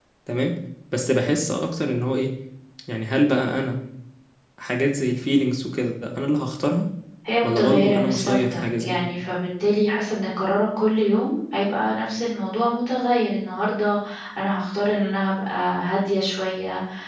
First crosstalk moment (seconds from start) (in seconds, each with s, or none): 7.4 s